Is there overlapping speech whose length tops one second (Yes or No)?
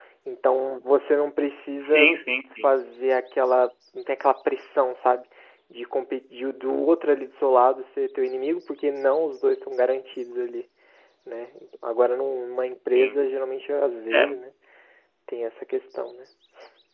No